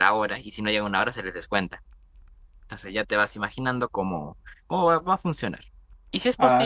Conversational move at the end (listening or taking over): listening